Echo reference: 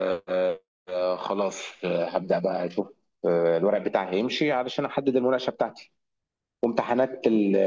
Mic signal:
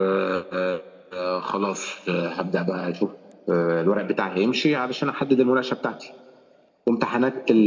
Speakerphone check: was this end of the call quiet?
Yes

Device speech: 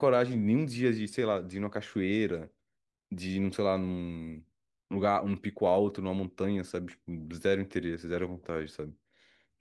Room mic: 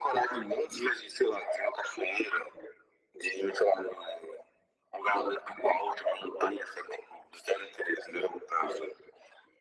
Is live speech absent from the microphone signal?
Yes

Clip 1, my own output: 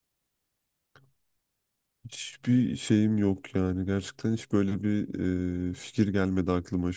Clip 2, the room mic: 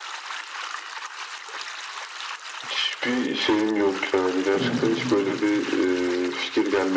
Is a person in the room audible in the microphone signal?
Yes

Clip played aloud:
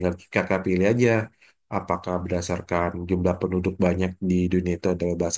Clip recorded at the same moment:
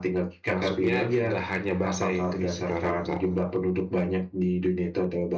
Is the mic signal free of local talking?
No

